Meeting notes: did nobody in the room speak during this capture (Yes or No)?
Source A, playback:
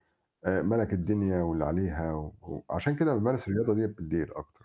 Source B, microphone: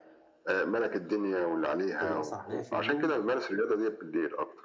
No